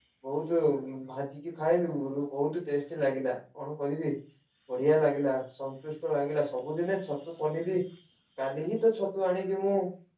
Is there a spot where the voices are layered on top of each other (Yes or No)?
No